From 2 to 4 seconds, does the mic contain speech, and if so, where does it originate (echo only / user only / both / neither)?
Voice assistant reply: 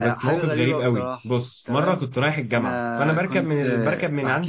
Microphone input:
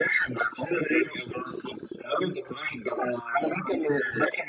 echo only